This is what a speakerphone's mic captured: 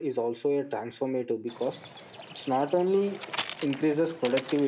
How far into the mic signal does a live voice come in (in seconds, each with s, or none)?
none